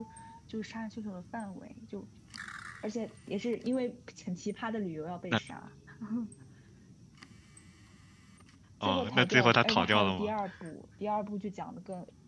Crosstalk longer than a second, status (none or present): present